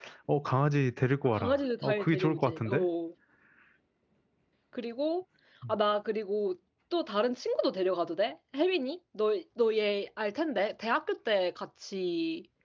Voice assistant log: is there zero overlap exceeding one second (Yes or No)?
No